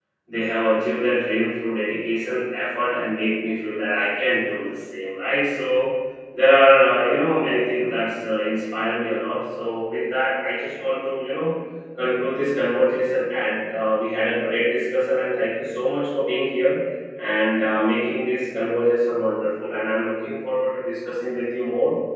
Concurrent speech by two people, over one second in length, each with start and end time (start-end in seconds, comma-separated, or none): none